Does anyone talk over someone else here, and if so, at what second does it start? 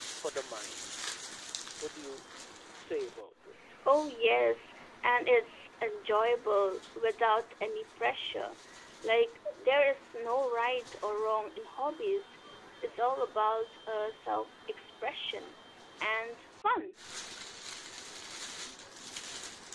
none

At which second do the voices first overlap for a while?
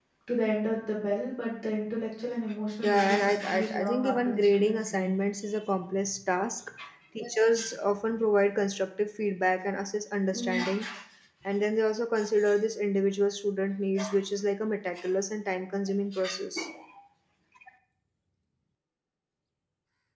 2.8 s

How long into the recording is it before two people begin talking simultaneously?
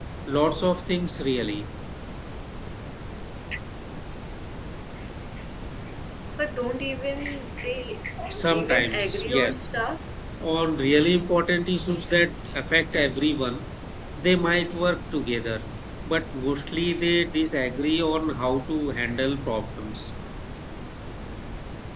8.4 s

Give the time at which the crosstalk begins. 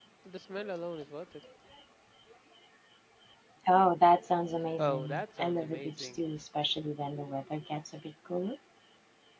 4.8 s

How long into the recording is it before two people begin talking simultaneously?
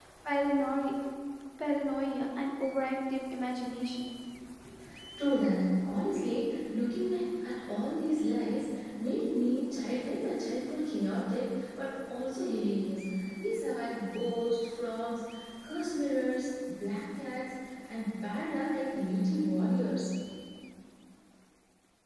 none

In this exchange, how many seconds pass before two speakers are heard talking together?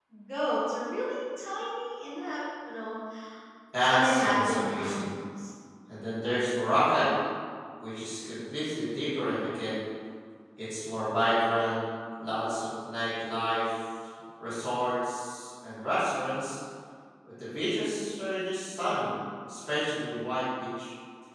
3.9 s

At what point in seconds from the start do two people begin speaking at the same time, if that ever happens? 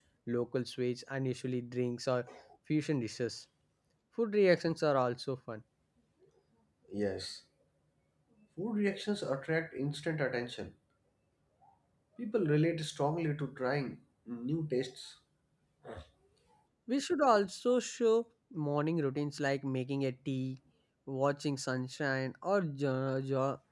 none

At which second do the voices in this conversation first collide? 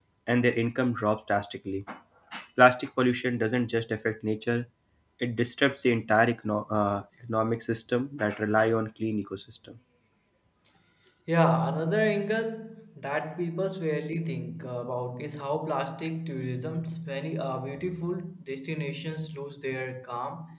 none

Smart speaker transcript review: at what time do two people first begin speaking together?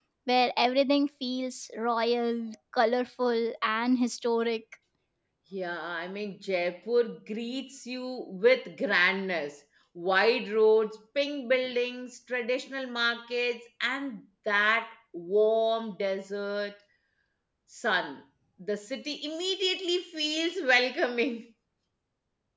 none

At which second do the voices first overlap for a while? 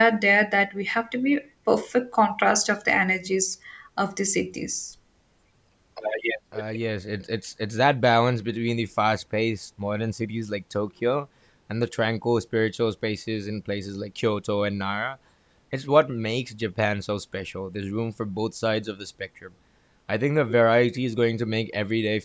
none

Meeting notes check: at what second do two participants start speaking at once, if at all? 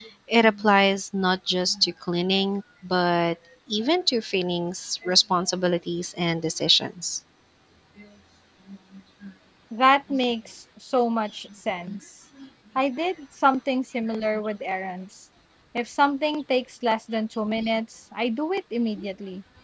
none

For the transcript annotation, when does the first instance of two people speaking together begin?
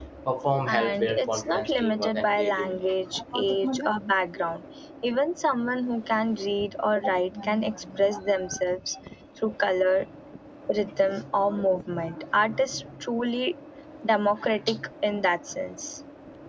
0.7 s

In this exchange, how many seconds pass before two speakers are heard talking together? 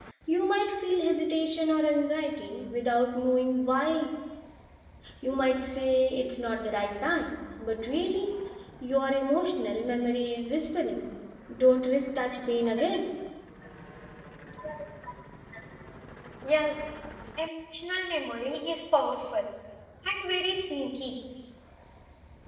none

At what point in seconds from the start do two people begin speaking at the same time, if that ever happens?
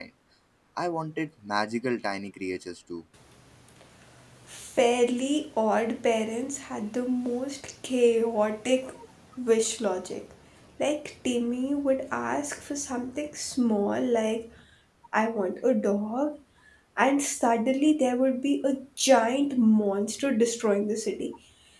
none

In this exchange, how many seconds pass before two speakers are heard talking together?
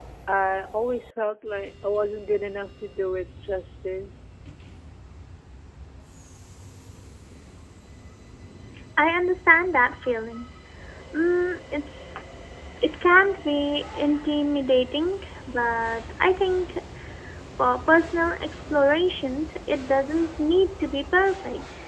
none

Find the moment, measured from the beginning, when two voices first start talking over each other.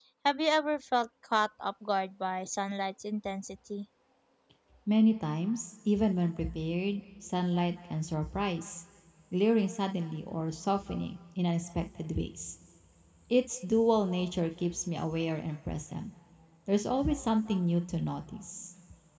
none

